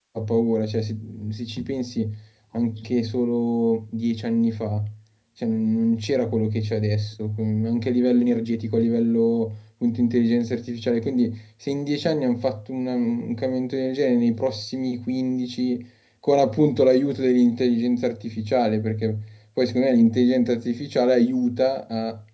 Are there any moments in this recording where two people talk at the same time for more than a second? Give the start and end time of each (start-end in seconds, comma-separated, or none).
none